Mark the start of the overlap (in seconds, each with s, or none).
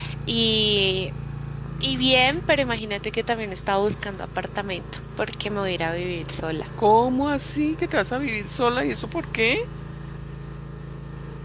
none